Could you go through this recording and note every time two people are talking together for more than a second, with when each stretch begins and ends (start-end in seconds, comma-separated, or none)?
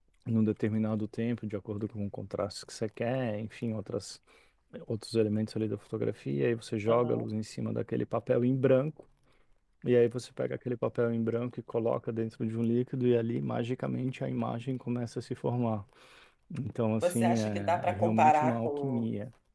17.0-19.0